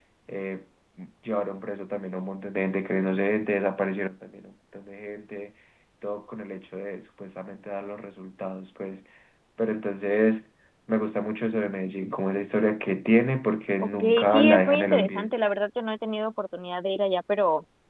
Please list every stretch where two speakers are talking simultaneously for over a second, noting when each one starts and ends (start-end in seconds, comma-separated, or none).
13.8-15.3